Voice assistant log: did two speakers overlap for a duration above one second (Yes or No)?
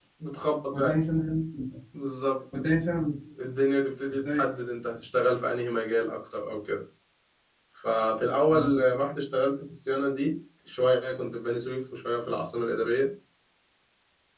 No